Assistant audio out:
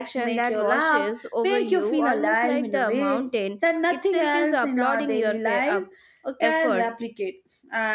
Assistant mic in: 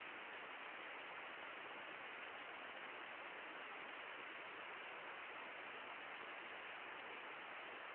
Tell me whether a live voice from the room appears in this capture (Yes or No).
No